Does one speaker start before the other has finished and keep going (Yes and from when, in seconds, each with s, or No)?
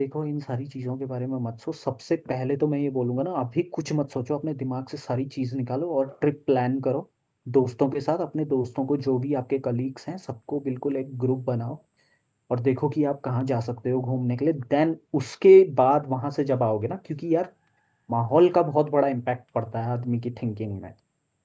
No